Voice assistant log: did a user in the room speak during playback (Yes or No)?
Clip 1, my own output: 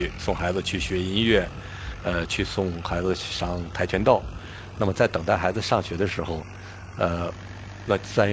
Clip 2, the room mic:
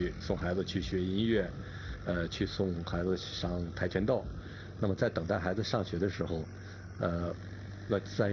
No